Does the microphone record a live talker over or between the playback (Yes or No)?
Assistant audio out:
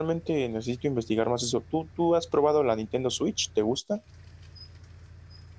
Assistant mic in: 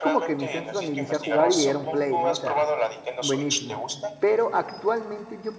Yes